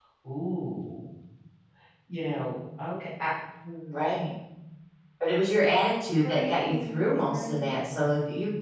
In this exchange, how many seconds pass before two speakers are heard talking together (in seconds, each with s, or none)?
6.2 s